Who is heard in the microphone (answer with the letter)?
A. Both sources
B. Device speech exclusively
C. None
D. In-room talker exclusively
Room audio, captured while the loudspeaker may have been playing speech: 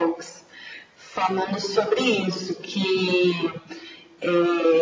B